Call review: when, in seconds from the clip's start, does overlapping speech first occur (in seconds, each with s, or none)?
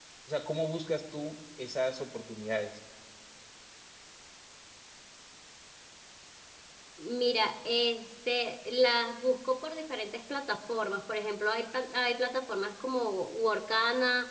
none